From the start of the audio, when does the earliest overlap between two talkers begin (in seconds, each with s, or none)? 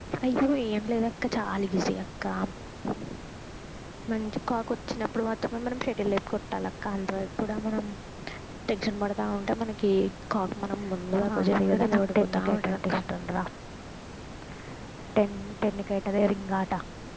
11.2 s